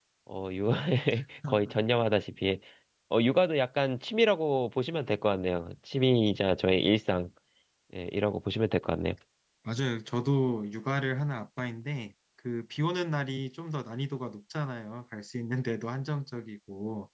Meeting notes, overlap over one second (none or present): none